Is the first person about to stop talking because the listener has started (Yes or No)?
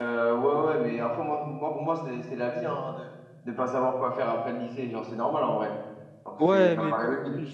Yes